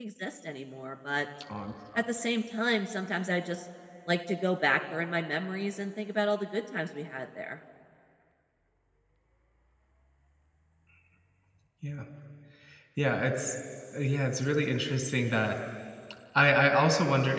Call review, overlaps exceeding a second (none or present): none